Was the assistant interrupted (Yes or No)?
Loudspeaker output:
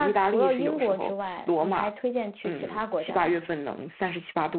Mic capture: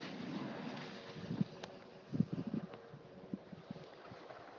No